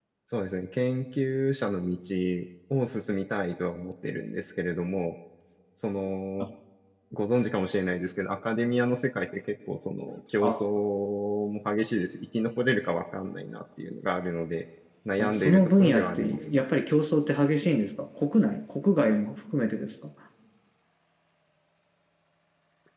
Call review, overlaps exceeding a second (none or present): present